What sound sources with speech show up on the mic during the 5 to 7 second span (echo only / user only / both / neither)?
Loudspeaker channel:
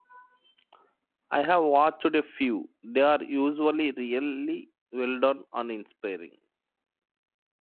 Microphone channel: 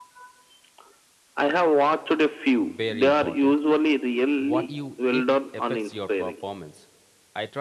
both